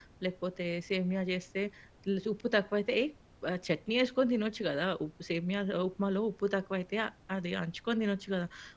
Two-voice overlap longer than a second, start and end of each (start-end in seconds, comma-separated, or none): none